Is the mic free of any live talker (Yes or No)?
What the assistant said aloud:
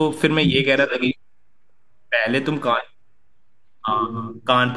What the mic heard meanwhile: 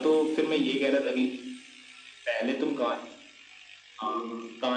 Yes